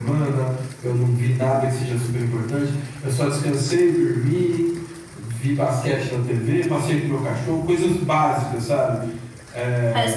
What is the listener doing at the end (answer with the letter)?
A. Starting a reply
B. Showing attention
A